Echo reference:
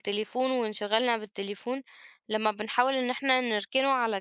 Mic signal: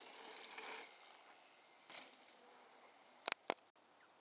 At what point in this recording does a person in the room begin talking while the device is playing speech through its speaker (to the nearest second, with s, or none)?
none